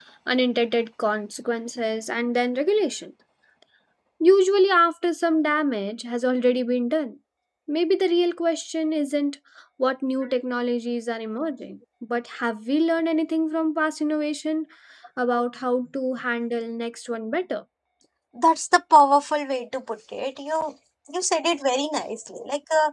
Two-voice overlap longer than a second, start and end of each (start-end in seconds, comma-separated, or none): none